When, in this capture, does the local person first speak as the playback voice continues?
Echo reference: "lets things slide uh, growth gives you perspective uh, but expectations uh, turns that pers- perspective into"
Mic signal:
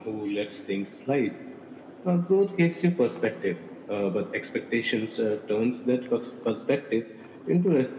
none

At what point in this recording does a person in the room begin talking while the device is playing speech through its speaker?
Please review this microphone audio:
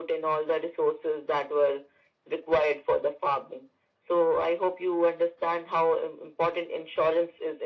none

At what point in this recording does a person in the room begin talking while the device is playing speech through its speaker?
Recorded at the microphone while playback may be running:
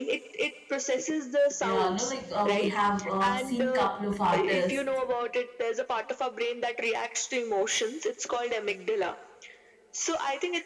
1.6 s

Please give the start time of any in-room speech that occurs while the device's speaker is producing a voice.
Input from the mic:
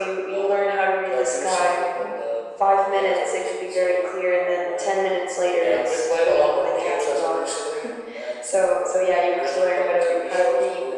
none

